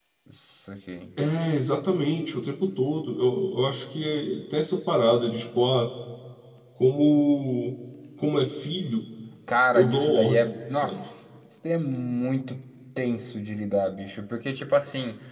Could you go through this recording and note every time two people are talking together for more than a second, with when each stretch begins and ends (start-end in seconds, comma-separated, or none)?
9.7-11.0